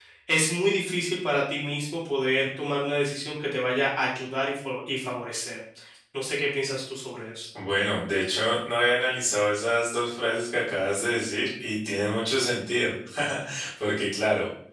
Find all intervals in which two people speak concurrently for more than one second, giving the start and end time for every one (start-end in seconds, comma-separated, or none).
none